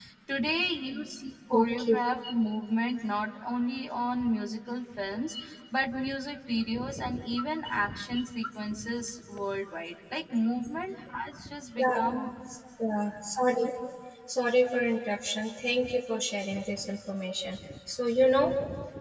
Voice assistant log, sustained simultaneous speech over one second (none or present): none